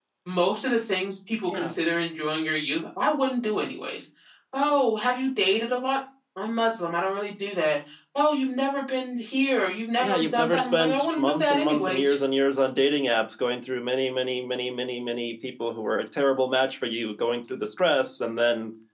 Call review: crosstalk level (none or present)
present